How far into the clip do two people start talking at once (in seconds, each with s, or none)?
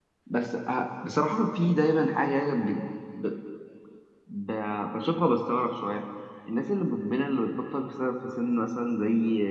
none